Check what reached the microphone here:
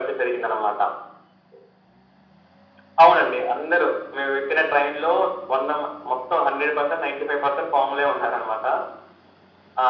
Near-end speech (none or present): none